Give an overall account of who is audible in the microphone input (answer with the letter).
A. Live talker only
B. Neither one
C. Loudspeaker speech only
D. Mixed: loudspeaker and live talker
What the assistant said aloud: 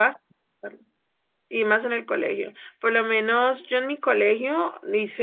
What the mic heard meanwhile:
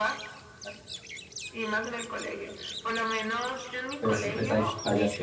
D